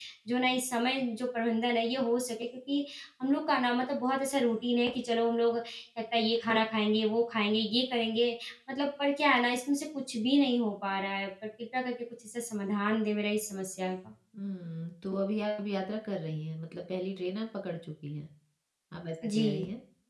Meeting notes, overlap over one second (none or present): none